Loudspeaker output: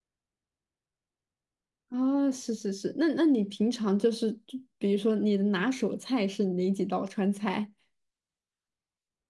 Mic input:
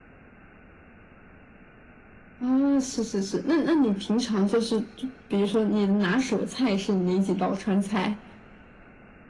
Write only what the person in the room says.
none

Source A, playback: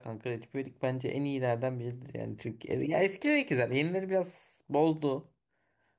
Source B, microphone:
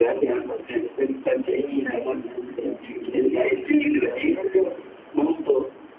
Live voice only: none

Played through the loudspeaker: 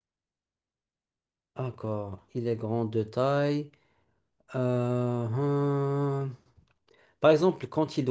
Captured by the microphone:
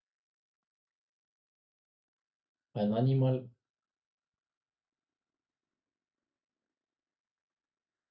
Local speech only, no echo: Un animal.

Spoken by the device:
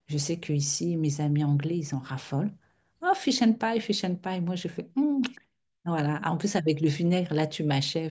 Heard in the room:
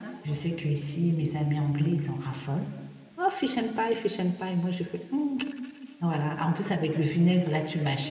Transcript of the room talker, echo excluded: none

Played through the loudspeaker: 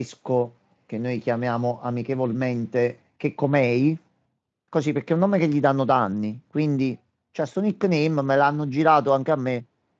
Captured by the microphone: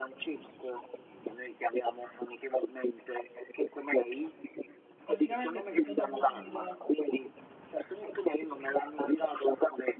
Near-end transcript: praticamente è fatto da Cupido.

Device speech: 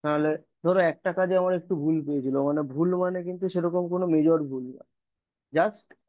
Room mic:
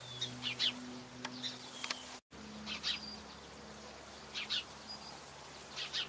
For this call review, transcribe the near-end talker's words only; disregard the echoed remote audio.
none

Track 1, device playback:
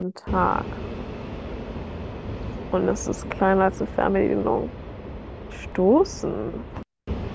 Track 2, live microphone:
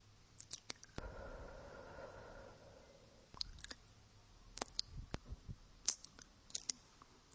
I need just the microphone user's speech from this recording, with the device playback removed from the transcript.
none

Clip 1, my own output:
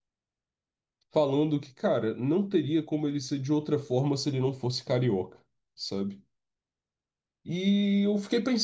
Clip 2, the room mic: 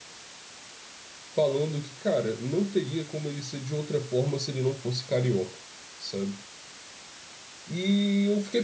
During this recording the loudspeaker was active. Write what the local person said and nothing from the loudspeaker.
none

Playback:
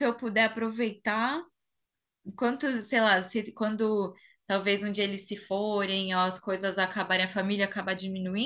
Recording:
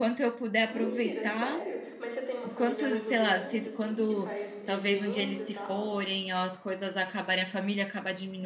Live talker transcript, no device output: Mentira, sério? Mas você tem uma família muito grande, assim, que faz evento e tal?

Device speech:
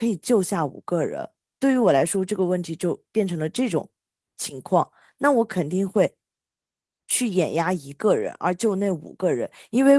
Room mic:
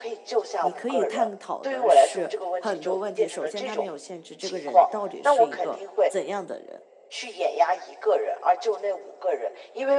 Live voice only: 你可以探讨的是很多问题。首先，他没有限制这个人到底是一个怎样的人，

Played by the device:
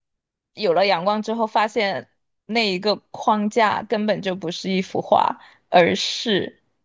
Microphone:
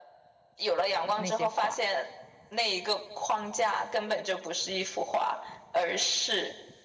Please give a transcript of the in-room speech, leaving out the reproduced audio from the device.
嗯那些画。

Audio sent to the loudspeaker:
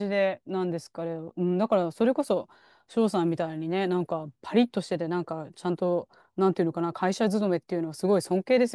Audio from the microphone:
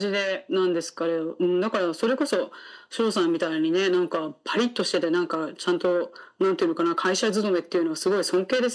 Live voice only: none

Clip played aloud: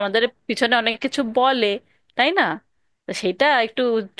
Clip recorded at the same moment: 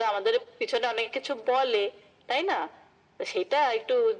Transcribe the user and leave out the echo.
none

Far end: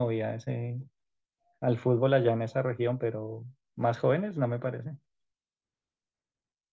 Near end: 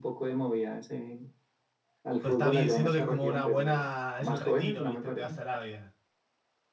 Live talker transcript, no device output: pero está bien, siento que es como una buena, es el retiro, ¿viste? Te vas a Arabia

